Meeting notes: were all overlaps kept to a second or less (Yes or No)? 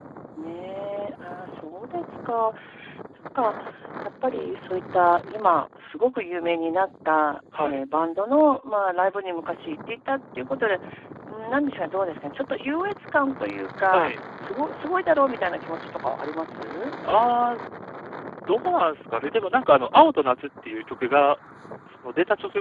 Yes